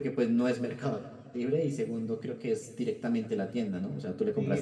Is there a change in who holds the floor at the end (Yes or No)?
Yes